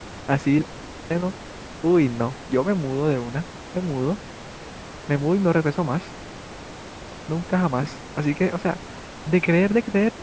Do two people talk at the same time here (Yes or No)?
No